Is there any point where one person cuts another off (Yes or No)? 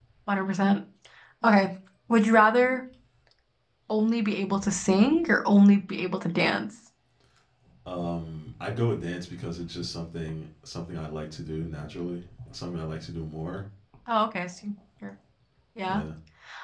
No